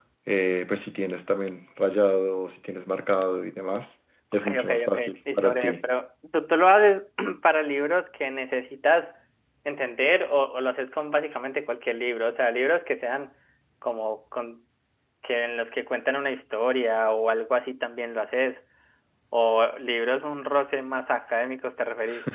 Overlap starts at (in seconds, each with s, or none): 4.3 s